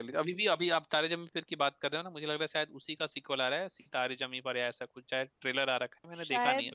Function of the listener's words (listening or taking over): taking over